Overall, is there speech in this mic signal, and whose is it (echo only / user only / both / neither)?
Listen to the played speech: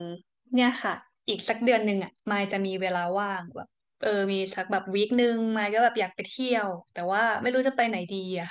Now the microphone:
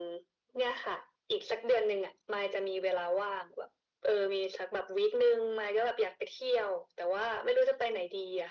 echo only